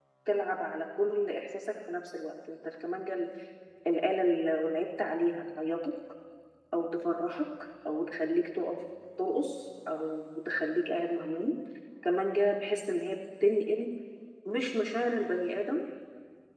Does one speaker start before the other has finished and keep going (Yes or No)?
No